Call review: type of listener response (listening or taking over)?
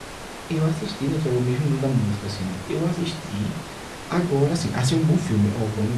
listening